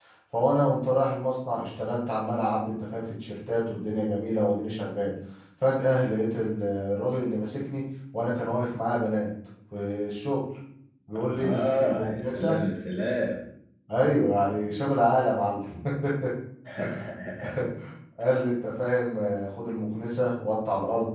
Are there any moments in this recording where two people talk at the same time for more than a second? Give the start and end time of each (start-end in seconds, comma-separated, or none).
11.2-12.6